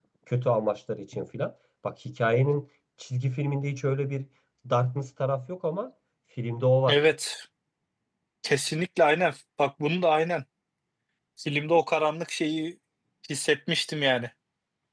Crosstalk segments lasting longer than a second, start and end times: none

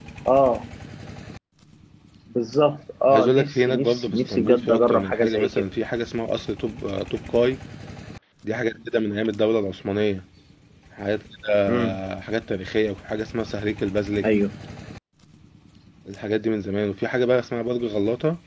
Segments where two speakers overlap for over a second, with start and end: 3.1-5.7

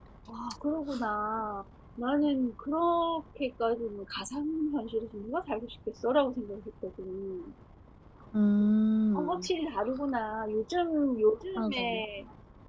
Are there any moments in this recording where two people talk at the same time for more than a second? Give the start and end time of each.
none

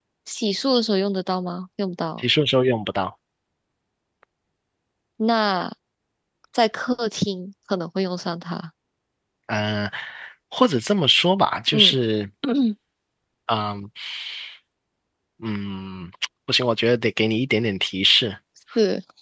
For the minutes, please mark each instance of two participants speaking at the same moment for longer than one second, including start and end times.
none

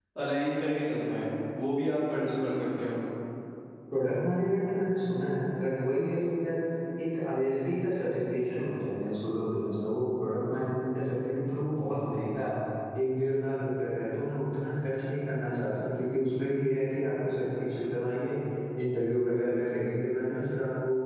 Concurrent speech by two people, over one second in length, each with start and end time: none

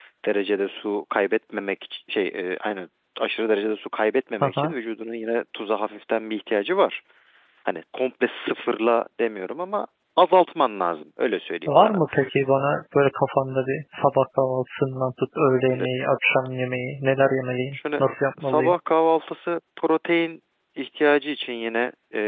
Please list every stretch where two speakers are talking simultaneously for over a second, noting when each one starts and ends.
none

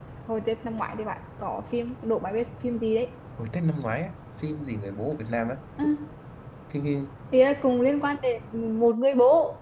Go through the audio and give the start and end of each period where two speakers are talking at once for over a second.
none

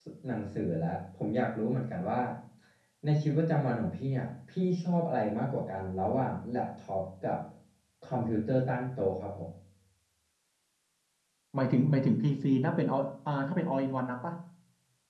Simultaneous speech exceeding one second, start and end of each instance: none

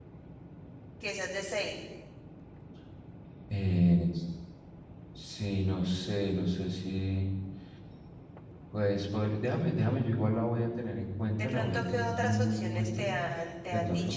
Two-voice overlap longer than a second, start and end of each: 11.4-13.1

